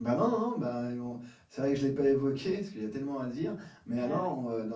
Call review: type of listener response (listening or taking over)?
listening